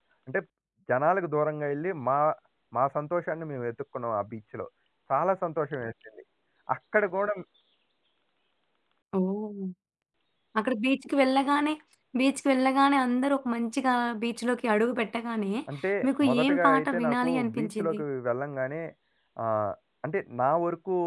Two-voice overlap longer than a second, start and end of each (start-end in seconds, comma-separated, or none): 16.2-18.0